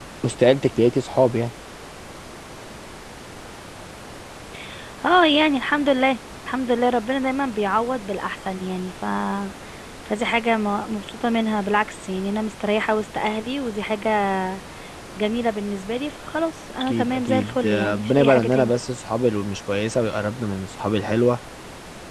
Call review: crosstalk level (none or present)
present